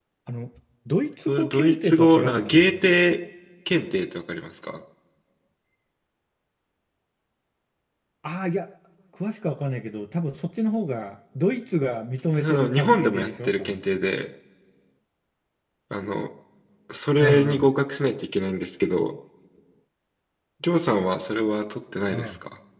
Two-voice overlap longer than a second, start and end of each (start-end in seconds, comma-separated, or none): 1.3-2.9, 12.4-13.8